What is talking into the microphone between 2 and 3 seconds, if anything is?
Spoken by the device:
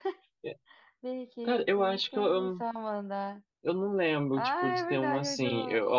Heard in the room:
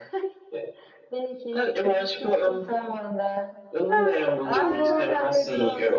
echo only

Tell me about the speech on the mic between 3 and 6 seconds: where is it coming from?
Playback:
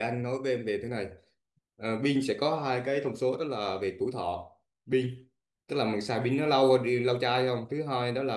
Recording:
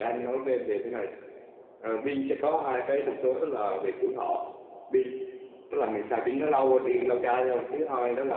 echo only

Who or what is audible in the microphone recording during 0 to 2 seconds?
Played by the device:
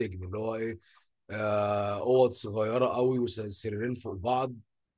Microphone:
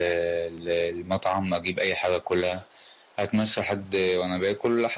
user only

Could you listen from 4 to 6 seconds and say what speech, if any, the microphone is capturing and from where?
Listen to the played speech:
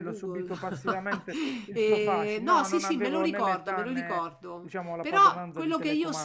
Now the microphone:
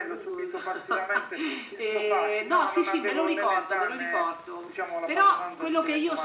echo only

